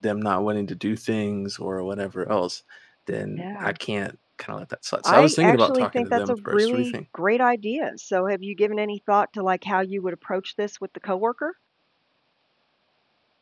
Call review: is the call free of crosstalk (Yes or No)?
No